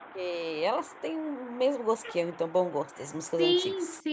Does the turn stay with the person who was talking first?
No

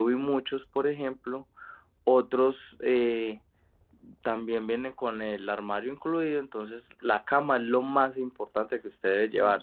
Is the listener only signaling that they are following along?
No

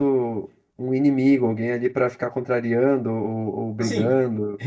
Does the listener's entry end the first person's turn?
Yes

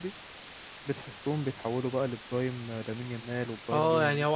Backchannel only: No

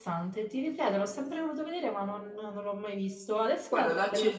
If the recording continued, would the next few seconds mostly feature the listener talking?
Yes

